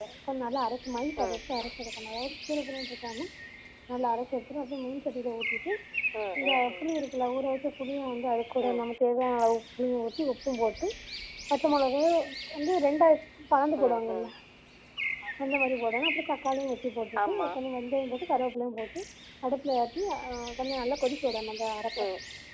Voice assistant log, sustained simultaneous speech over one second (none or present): none